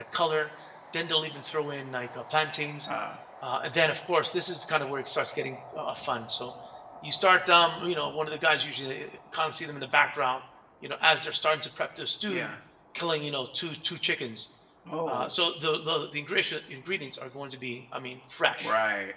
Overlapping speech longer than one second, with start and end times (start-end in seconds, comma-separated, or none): none